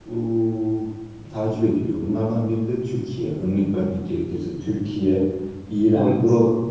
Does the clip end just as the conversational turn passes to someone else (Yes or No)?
No